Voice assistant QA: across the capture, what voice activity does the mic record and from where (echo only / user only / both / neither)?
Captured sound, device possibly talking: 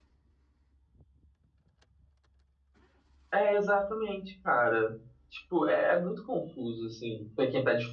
user only